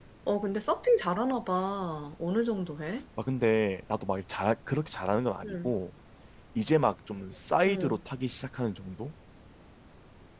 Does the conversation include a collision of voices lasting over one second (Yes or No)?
No